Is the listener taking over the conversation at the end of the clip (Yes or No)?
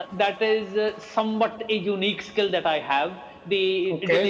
No